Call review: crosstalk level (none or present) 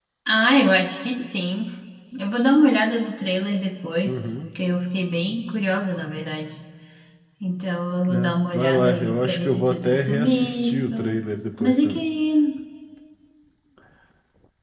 present